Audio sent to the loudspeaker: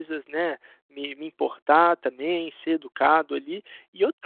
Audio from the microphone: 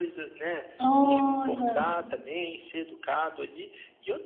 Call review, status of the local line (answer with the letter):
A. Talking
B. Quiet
A